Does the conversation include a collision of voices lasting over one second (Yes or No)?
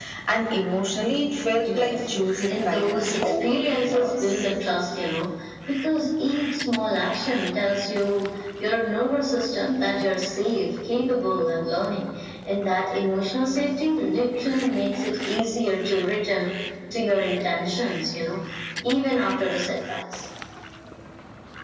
Yes